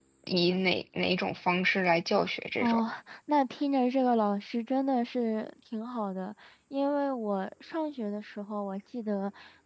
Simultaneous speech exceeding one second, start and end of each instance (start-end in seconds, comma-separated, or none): none